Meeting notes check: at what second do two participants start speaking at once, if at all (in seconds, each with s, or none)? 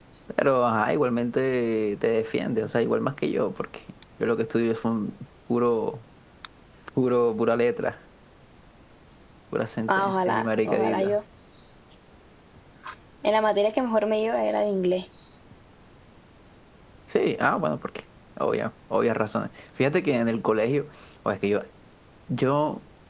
9.9 s